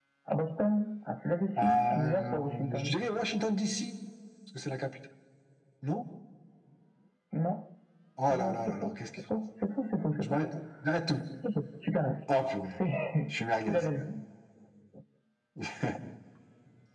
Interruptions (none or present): present